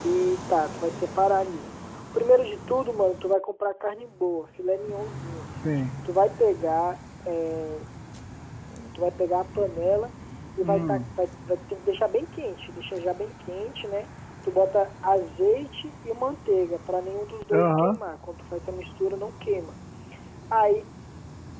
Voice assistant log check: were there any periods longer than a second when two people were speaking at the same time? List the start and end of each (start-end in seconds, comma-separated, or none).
none